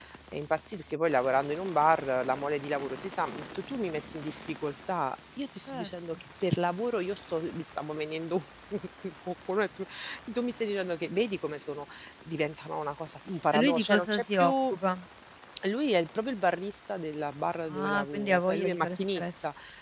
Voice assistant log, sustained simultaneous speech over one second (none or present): present